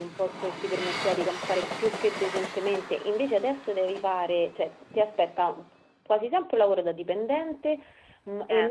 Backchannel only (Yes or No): Yes